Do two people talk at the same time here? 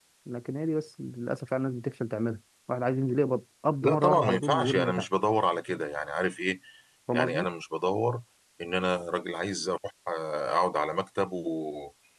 Yes, from 3.8 s

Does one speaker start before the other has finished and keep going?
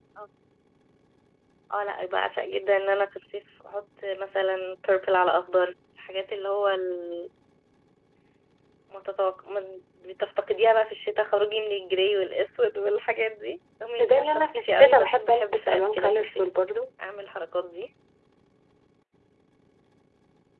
Yes, from 14.0 s

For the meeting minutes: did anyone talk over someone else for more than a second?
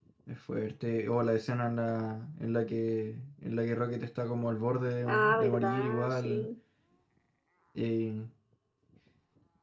Yes, from 5.1 s

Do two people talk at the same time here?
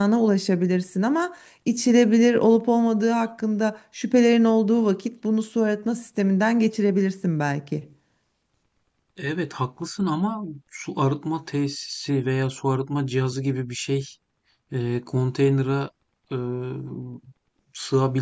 No

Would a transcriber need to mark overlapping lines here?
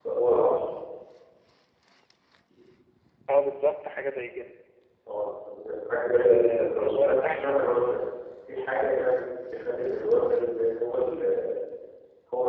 Yes, from 6.1 s

